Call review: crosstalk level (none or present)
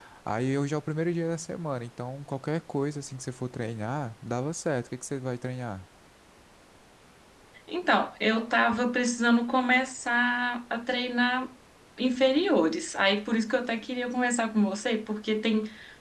none